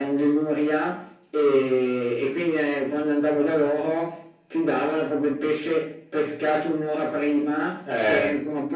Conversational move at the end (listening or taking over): listening